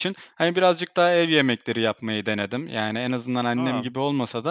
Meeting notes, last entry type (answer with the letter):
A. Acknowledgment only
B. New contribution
A